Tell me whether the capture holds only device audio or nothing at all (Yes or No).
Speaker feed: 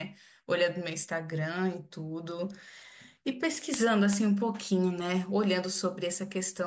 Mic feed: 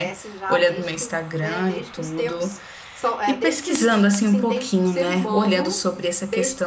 No